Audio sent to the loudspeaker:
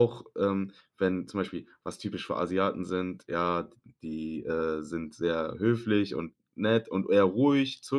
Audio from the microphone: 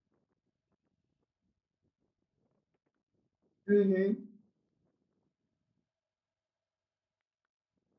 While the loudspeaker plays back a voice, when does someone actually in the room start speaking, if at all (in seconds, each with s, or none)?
3.7 s